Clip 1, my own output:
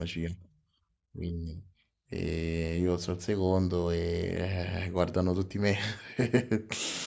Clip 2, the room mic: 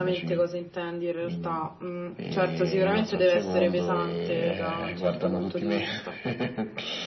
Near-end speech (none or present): present